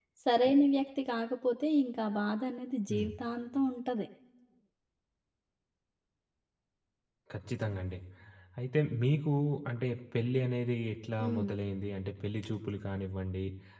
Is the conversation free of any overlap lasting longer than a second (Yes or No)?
Yes